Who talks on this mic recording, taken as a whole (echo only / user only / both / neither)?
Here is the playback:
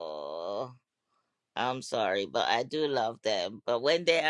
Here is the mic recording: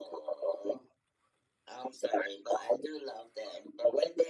echo only